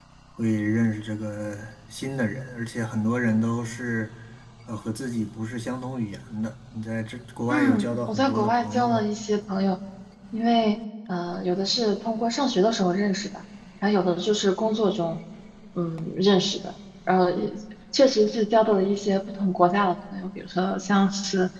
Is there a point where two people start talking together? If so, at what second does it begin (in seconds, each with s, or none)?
7.5 s